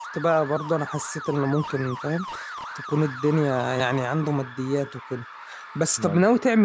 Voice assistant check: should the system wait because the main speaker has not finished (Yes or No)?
Yes